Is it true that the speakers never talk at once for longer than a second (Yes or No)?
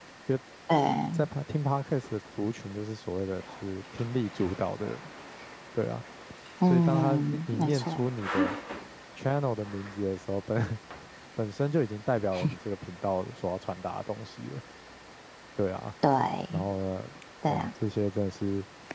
No